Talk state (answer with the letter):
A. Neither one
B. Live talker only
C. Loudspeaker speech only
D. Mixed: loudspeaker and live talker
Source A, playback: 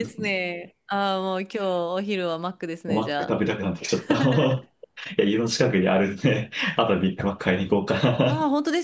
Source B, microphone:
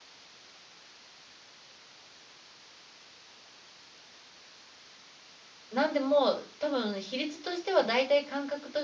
B